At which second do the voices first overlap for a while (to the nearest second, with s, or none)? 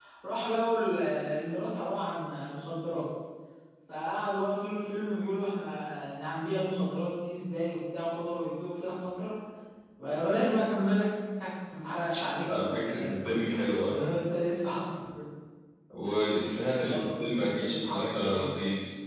12 s